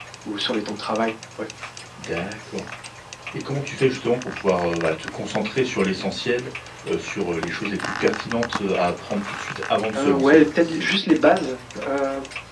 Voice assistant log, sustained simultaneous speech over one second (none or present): none